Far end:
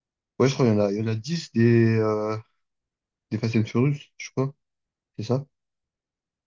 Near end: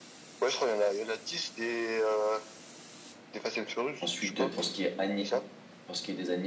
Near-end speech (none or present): present